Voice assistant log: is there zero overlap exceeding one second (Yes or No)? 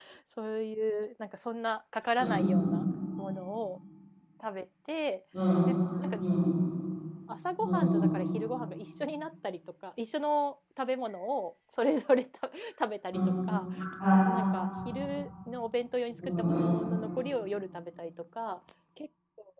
Yes